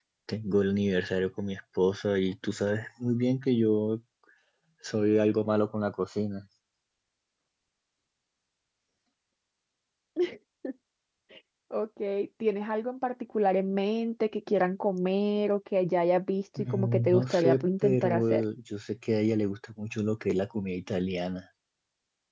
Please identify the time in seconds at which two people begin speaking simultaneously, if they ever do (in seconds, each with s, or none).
16.6 s